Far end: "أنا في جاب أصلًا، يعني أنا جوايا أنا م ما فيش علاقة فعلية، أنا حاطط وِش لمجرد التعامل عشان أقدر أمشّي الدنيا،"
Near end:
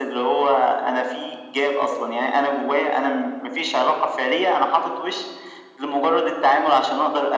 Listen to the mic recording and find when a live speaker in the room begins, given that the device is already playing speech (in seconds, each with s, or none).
none